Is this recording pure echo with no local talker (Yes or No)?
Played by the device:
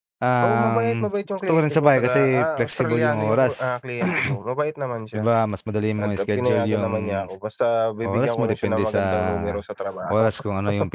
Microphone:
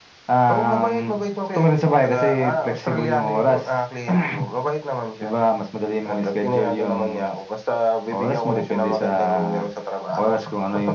Yes